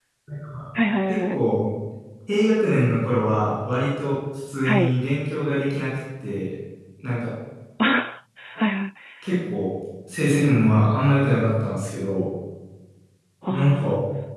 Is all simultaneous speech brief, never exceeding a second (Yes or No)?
Yes